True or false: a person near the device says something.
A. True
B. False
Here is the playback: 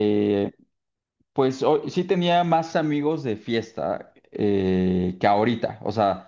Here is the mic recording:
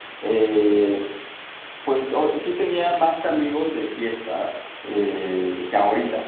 B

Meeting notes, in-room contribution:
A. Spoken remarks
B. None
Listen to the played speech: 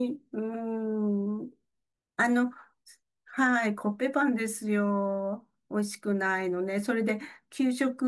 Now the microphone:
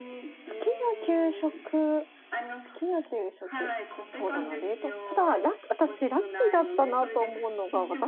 A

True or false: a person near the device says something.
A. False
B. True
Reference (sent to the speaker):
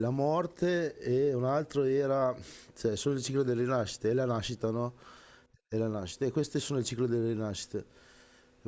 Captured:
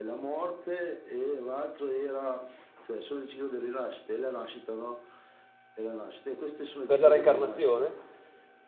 B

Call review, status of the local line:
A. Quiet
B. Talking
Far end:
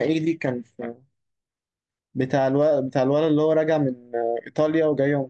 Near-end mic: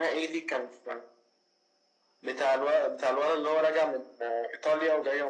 A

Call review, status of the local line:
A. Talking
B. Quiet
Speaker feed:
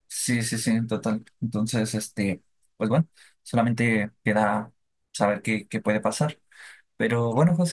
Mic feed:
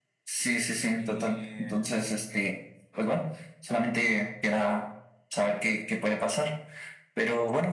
A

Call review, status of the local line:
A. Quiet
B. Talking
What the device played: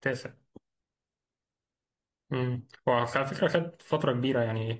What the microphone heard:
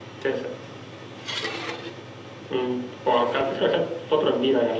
A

